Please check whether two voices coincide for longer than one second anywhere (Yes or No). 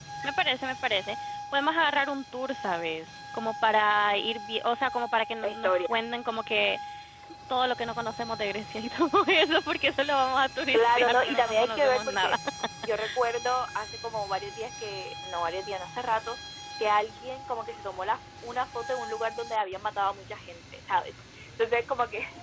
Yes